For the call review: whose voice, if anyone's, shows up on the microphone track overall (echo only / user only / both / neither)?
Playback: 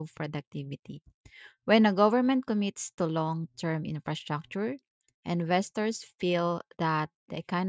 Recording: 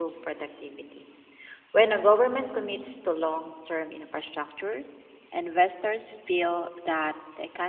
echo only